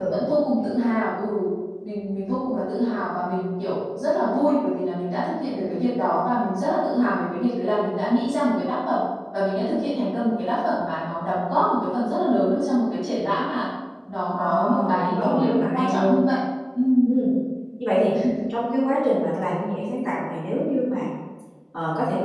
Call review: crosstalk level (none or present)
present